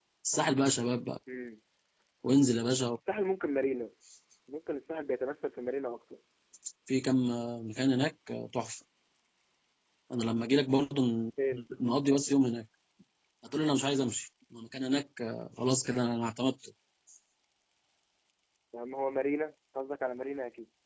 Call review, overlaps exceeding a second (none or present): none